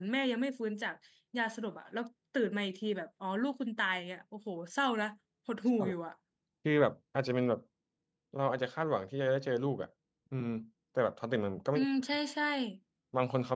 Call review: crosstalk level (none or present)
none